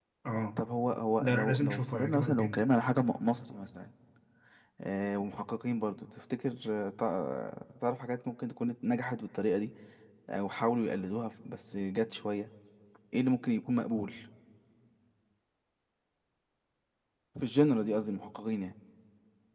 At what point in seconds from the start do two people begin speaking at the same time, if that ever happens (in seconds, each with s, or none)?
1.2 s